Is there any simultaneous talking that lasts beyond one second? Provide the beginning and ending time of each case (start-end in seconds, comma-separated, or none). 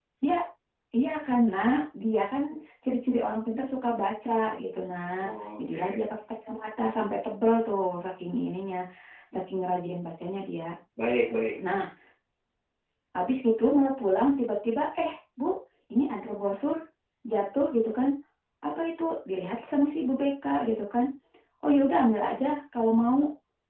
none